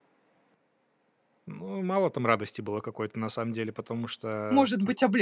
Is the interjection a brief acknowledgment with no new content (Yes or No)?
No